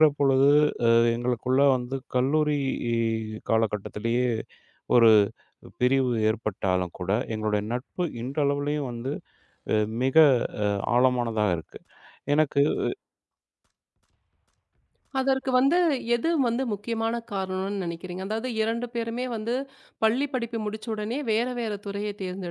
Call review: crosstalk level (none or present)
none